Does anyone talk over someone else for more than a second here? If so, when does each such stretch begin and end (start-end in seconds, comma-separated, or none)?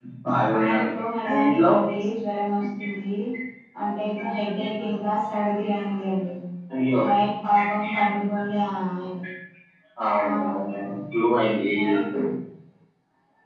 none